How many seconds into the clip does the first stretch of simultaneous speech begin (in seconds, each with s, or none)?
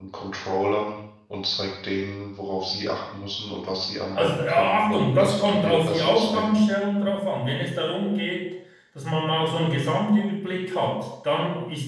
4.2 s